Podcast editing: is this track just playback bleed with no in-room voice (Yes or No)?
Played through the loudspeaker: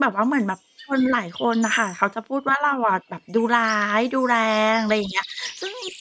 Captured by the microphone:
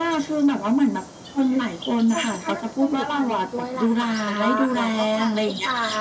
No